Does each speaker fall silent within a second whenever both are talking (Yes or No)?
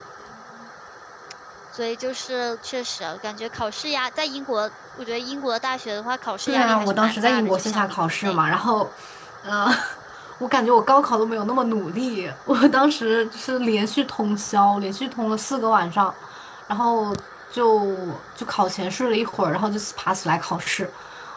No